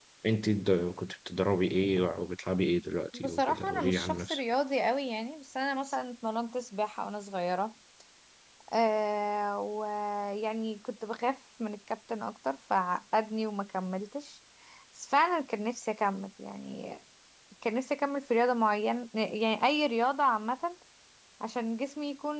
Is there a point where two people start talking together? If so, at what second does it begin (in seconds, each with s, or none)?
3.1 s